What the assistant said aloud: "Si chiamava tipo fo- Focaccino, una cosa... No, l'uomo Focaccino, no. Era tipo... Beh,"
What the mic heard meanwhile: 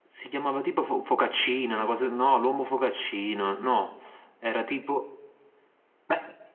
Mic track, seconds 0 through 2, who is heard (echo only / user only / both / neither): echo only